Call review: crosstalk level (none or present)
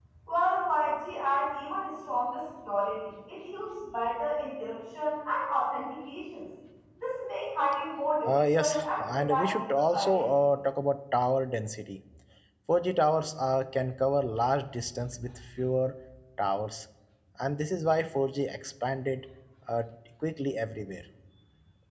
present